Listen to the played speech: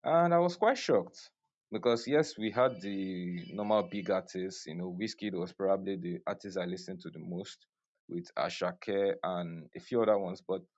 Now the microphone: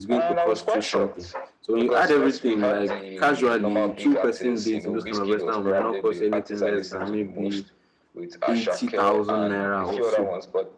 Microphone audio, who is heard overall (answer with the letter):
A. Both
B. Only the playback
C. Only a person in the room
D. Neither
A